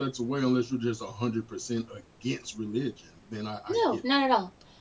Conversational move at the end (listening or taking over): taking over